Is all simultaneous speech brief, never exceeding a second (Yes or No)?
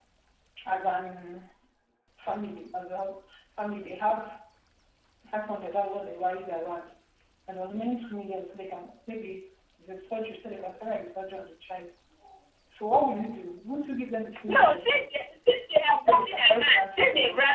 No